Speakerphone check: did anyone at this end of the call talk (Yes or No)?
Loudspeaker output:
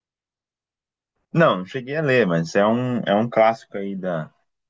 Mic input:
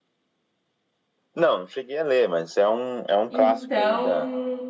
Yes